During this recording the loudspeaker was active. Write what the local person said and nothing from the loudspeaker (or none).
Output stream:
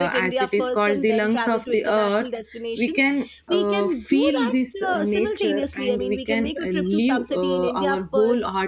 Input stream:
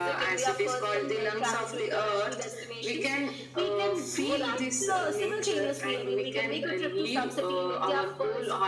none